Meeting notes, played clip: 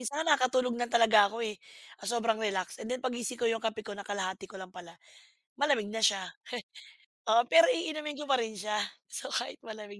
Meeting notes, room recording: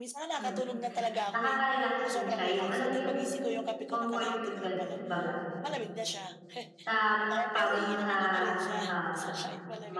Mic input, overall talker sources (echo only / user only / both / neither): both